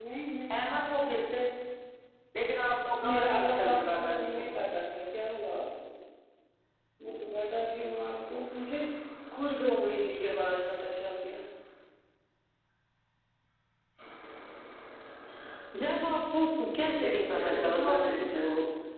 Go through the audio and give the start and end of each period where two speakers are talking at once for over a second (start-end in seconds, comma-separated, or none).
3.1-4.5, 17.0-18.4